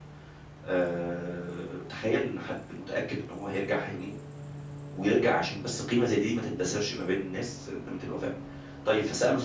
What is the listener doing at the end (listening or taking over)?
listening